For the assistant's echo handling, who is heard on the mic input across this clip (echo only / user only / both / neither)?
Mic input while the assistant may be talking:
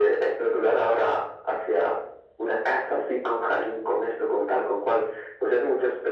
echo only